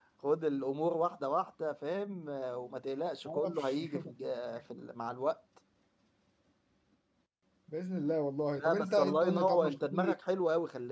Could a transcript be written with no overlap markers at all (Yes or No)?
No